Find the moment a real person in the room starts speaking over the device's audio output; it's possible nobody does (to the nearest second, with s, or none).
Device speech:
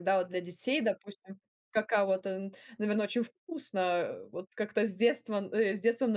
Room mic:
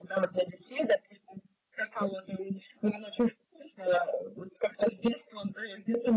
none